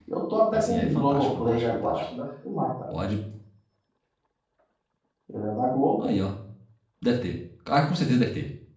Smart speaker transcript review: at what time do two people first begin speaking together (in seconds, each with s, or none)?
0.5 s